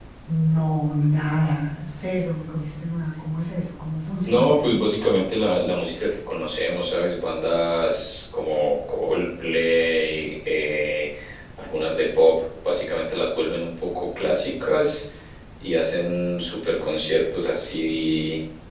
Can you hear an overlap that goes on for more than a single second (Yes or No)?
No